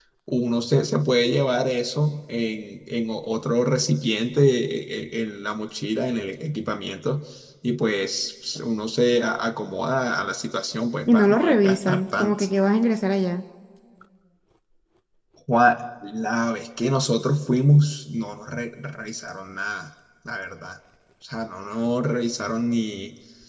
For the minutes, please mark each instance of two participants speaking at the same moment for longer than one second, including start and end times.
11.1-12.4

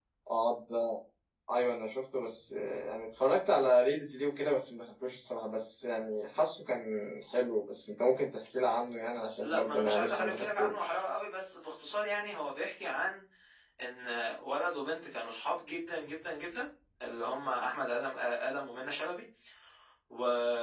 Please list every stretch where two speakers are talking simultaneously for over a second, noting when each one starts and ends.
9.4-10.9

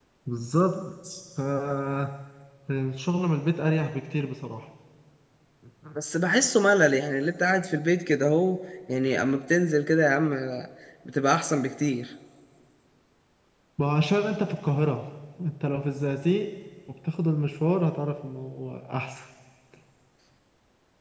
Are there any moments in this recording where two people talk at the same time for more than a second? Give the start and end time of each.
none

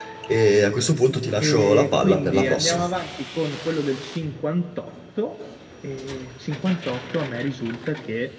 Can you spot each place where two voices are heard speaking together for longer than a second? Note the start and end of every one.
1.4-2.9

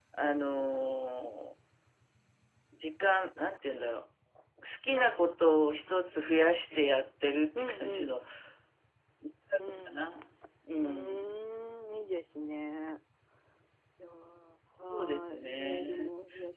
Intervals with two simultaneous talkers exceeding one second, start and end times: 14.8-16.1

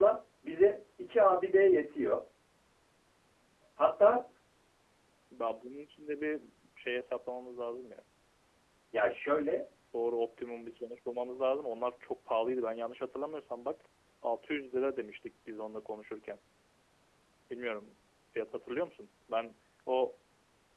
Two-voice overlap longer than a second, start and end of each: none

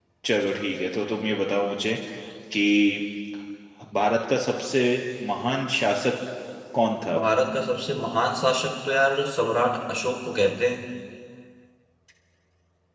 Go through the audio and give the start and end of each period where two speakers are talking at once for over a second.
none

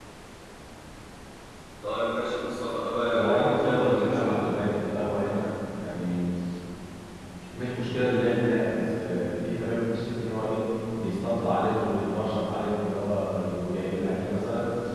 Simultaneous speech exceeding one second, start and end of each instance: 3.1-4.4

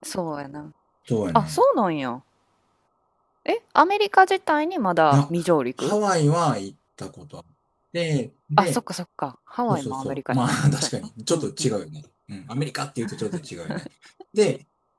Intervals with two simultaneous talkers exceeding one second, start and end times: 9.7-11.5

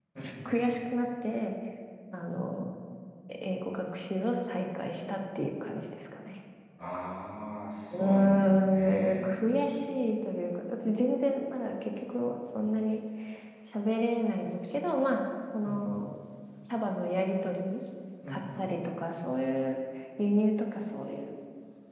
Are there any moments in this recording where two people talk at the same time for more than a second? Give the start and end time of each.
7.9-9.3

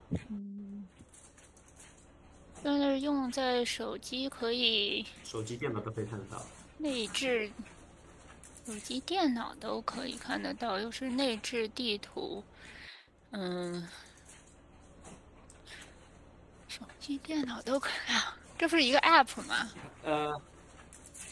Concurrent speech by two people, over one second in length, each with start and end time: none

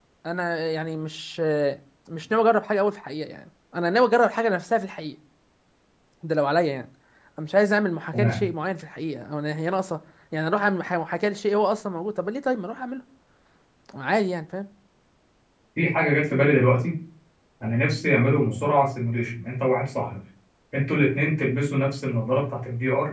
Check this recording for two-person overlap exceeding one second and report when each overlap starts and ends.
none

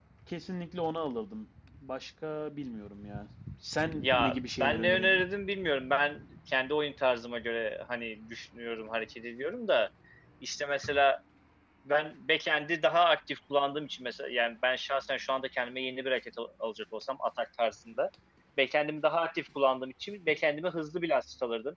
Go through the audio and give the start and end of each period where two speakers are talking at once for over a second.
4.0-5.2

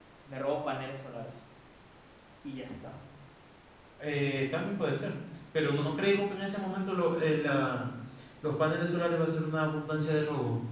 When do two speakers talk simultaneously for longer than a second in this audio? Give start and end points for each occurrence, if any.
none

